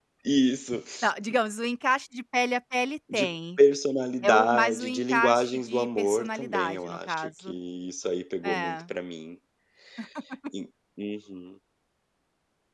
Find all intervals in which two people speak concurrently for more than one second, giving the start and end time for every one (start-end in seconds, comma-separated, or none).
4.2-7.5